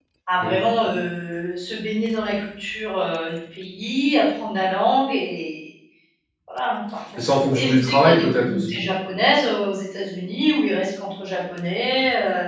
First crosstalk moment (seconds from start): 7.2 s

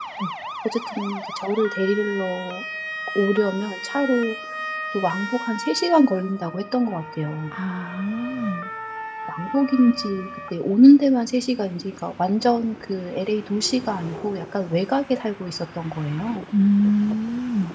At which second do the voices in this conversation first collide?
none

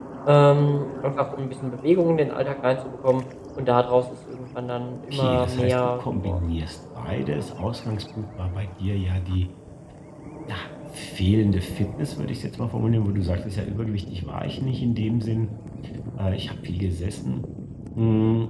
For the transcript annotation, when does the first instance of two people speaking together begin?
5.1 s

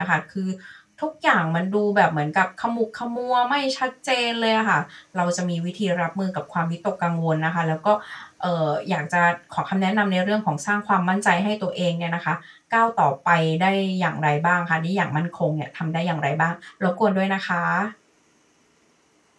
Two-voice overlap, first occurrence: none

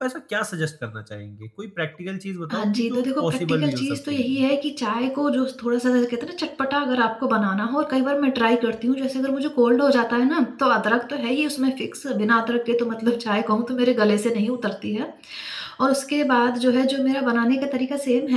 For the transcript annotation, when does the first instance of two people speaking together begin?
2.5 s

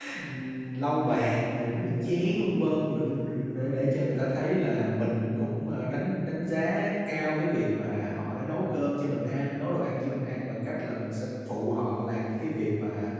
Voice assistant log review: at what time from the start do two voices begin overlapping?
none

